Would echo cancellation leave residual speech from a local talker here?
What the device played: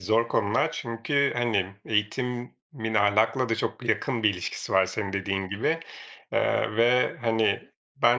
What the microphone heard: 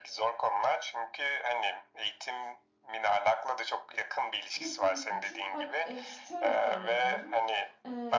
Yes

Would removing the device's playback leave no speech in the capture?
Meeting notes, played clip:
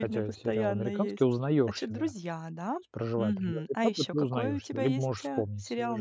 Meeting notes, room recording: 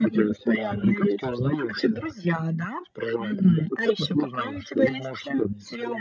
Yes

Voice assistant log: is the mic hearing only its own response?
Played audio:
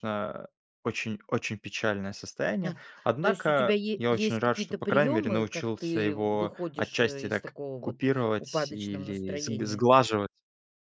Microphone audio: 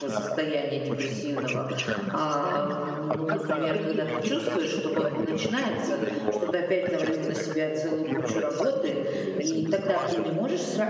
No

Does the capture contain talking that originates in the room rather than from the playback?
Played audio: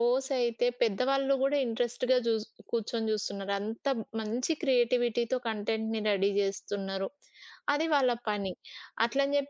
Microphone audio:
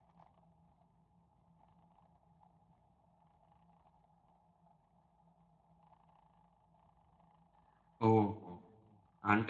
Yes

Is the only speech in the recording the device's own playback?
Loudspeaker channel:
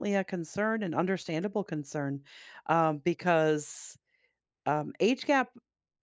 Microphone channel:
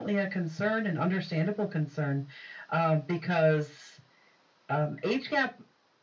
Yes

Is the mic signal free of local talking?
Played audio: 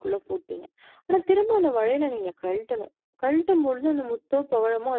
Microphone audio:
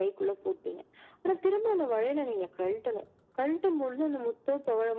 Yes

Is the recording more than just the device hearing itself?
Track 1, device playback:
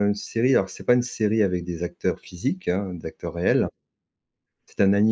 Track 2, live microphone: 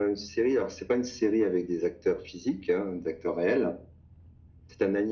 No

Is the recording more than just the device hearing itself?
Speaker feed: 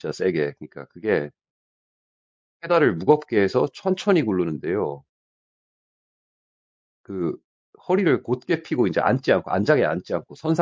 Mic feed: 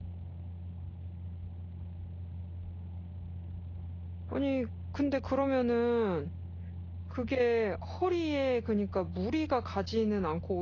Yes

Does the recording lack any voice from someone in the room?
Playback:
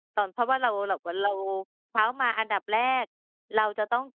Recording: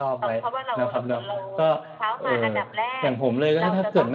No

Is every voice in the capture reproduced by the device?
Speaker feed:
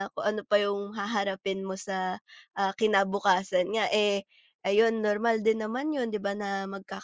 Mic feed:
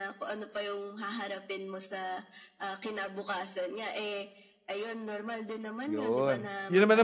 No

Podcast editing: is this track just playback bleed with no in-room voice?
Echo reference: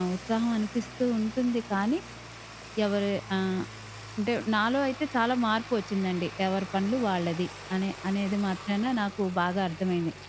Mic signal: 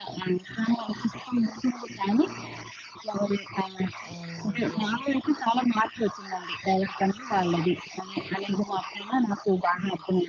No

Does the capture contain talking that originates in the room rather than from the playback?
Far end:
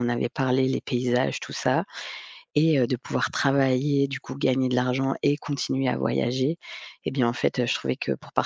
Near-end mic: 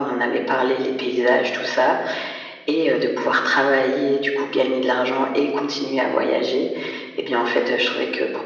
No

